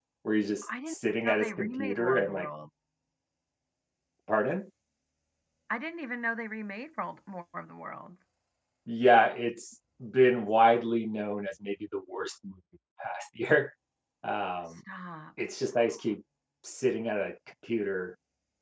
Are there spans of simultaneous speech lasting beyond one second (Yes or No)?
Yes